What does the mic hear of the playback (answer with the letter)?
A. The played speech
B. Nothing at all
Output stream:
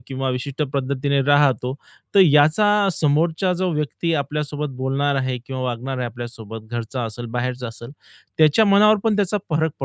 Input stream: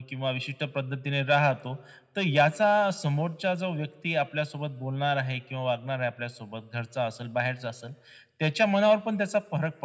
A